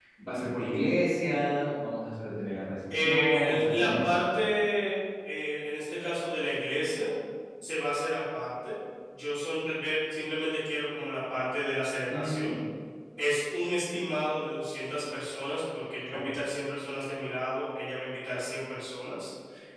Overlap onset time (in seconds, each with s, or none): 2.9 s